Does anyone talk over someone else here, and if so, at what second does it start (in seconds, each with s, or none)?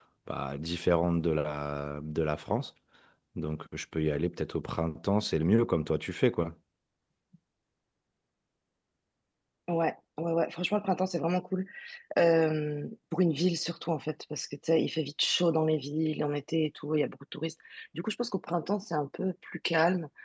none